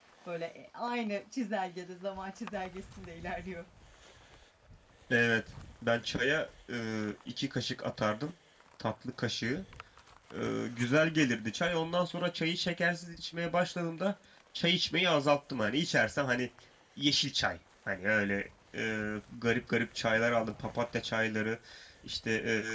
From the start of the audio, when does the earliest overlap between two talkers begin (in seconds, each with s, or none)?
none